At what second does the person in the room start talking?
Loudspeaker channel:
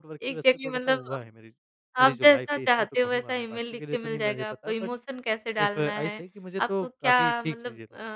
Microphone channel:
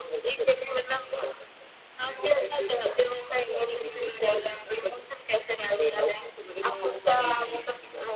none

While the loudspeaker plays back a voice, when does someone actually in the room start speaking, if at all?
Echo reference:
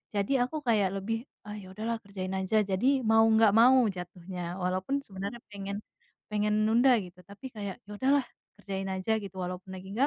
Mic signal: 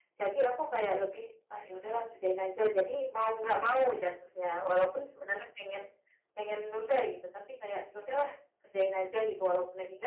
none

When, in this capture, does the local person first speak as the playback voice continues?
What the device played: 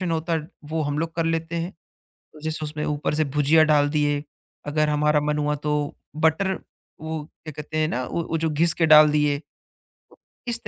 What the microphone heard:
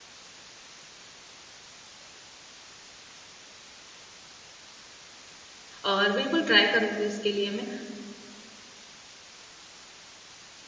5.8 s

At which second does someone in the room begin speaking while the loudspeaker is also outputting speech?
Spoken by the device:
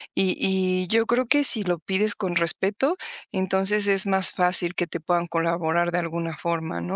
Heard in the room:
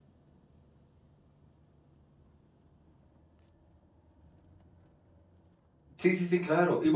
6.0 s

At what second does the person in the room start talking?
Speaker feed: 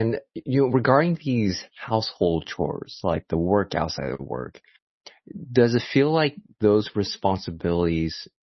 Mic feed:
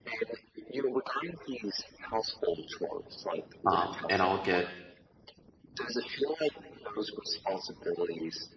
3.7 s

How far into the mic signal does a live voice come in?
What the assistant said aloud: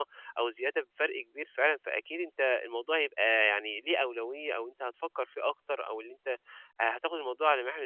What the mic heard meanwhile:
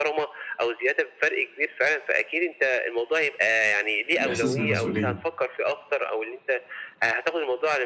4.2 s

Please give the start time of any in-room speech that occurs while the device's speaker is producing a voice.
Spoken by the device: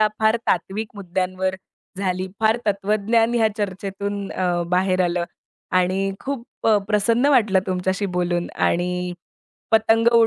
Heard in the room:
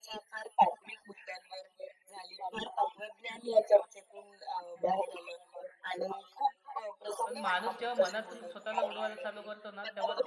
7.2 s

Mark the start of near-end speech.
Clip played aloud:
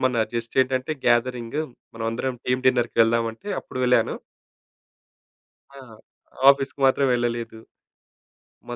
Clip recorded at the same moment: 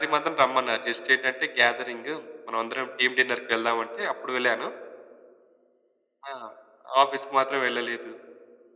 none

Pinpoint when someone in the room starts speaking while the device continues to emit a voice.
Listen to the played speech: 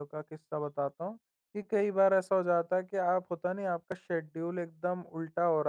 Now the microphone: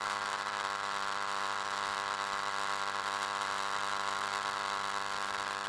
none

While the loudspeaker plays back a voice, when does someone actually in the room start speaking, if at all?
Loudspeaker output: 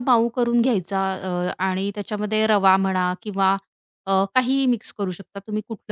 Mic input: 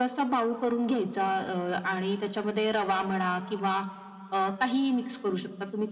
none

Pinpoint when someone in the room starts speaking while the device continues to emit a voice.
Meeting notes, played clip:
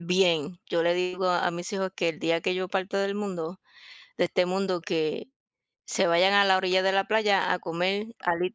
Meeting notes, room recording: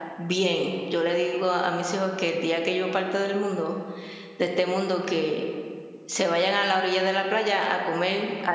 none

